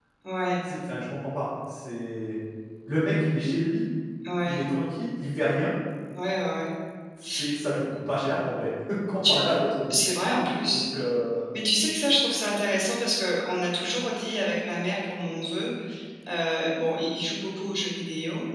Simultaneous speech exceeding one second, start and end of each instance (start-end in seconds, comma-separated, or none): none